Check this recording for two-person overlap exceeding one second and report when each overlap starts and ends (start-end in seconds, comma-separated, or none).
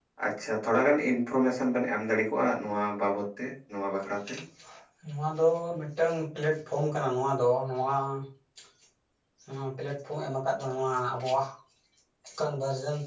none